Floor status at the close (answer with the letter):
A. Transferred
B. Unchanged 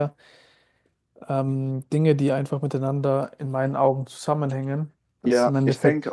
A